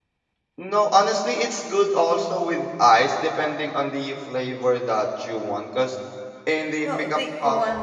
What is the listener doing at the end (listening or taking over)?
taking over